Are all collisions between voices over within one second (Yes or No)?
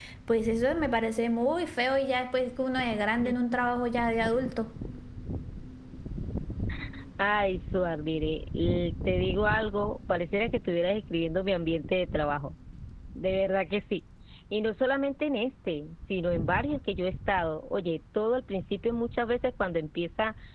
Yes